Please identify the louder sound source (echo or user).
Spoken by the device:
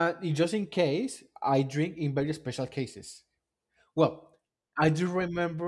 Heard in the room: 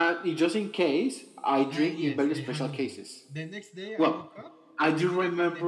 echo